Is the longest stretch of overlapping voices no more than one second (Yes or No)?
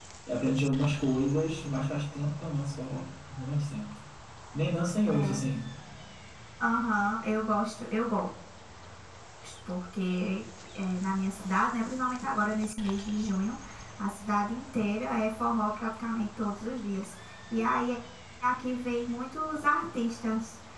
Yes